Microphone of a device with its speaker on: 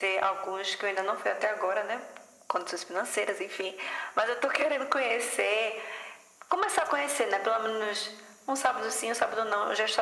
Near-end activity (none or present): none